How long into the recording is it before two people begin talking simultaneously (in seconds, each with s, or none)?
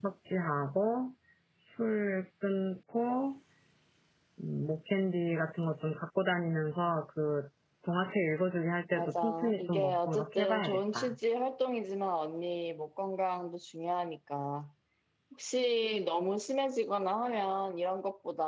8.9 s